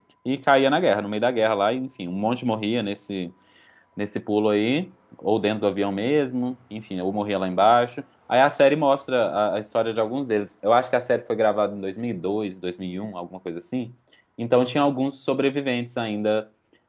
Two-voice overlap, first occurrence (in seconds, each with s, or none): none